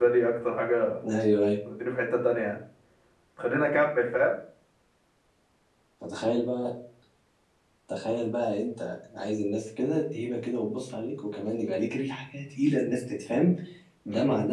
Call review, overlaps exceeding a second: none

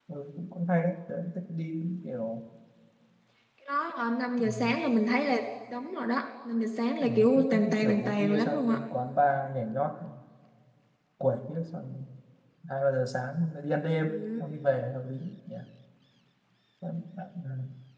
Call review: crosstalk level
present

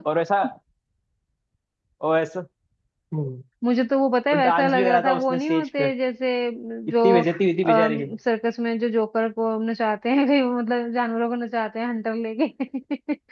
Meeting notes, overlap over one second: present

